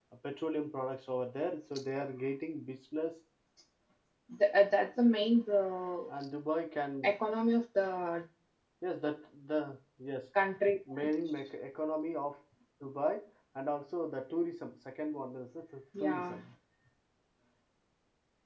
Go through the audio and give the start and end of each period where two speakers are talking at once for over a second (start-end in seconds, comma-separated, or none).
none